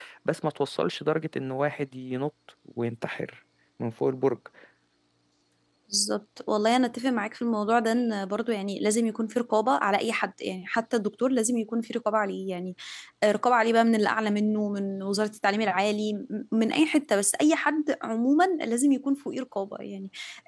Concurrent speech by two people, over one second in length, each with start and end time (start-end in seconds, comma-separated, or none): none